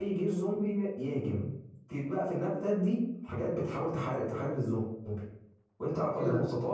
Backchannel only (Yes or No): Yes